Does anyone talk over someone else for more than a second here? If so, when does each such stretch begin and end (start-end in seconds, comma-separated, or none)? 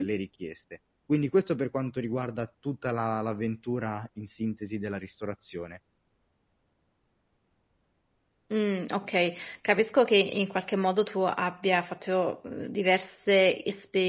none